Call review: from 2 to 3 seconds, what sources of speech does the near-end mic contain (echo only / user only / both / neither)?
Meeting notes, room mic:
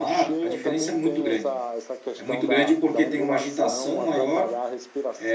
both